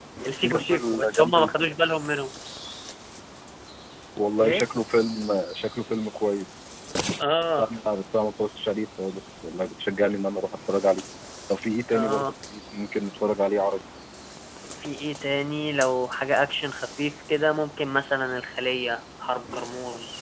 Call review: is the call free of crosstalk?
No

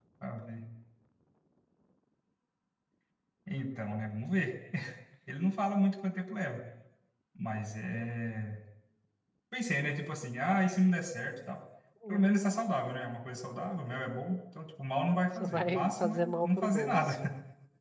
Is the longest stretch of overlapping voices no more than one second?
No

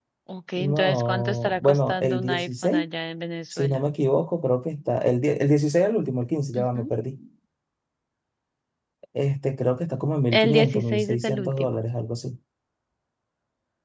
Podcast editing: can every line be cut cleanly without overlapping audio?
No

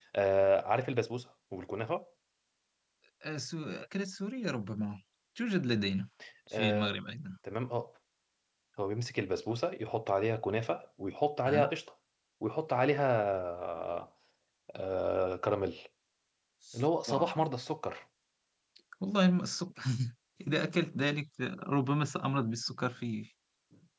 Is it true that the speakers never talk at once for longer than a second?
Yes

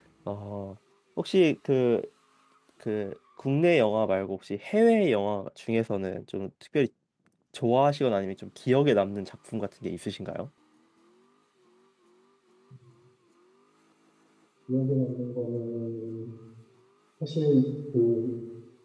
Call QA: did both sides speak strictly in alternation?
Yes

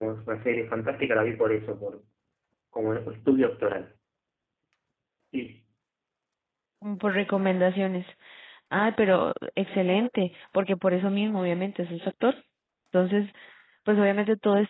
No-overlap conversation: Yes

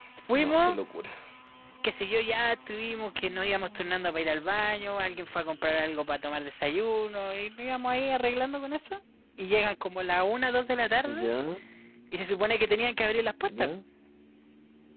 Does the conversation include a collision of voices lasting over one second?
No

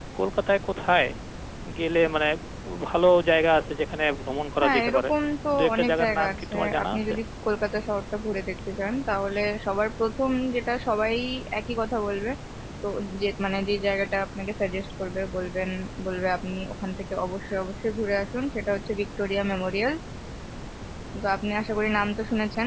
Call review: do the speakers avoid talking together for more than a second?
No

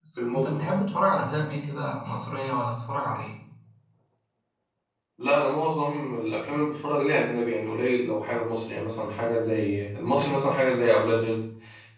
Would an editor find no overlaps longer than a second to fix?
Yes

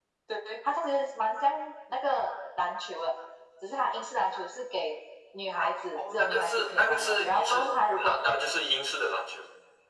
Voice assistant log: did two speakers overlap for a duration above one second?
Yes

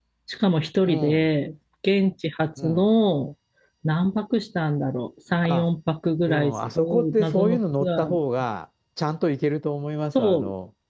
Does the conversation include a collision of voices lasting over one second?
Yes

